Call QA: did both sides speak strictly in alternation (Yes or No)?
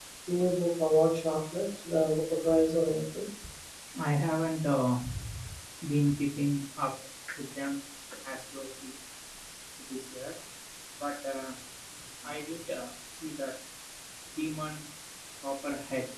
Yes